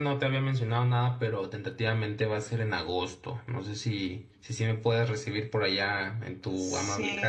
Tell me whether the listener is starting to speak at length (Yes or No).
Yes